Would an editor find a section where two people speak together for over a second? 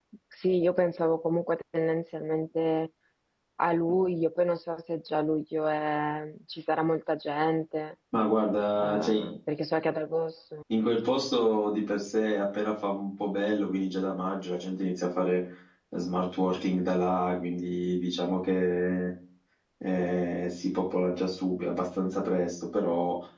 No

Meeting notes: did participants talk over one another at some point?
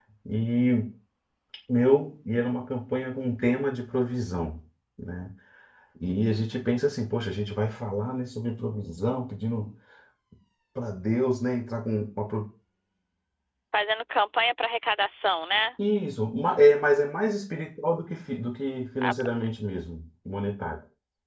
No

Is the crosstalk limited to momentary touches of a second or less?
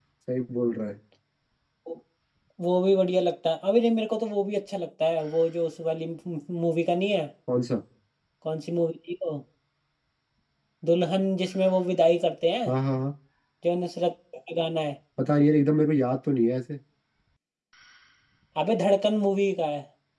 Yes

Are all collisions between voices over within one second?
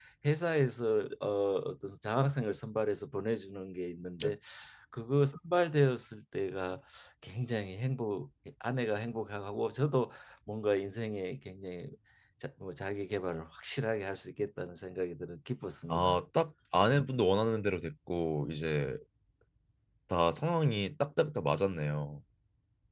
Yes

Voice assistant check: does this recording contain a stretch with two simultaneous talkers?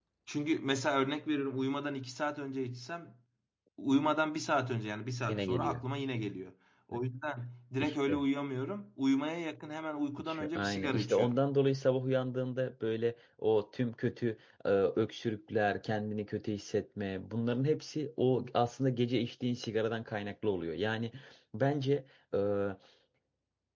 Yes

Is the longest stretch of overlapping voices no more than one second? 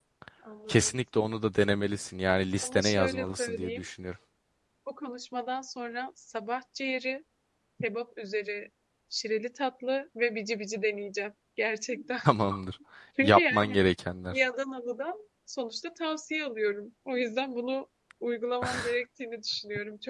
No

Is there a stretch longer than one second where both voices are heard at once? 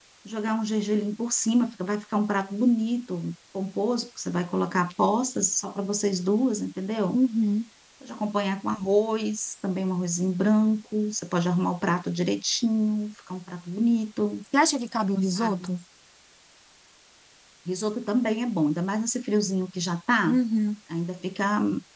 No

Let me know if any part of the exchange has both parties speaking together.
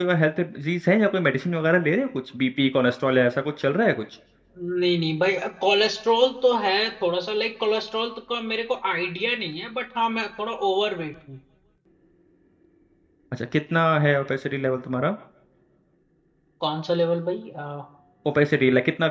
No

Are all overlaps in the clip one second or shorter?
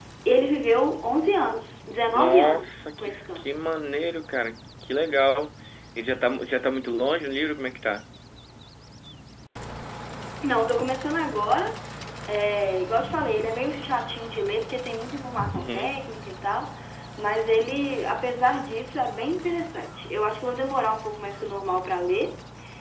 No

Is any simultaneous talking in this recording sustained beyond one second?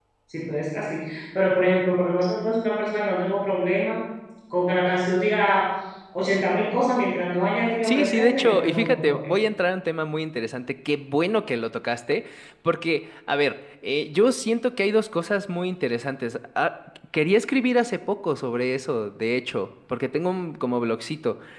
Yes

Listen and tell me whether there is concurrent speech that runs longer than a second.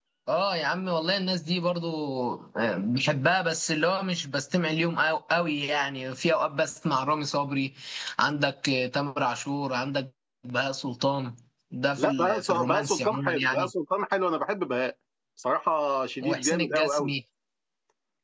Yes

